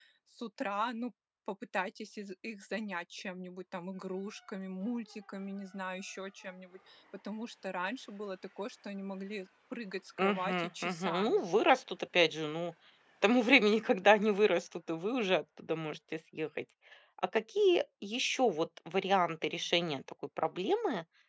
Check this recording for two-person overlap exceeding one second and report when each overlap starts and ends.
10.2-11.4

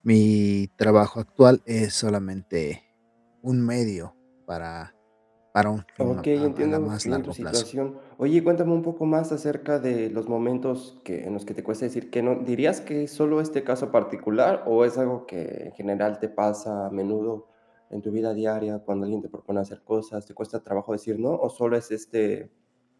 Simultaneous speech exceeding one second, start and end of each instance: 6.0-7.6

